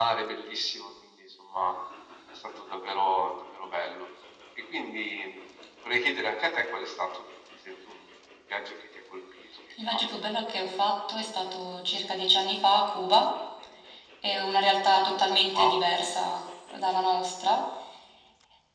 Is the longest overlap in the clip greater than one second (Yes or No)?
No